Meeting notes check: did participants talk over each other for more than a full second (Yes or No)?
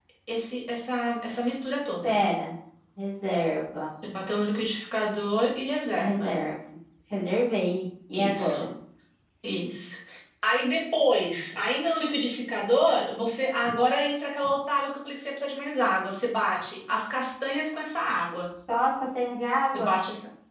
No